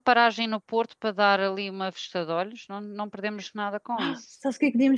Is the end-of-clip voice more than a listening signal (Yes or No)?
Yes